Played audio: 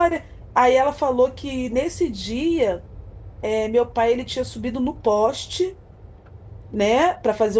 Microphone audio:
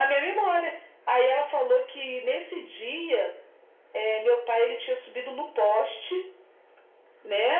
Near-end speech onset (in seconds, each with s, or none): none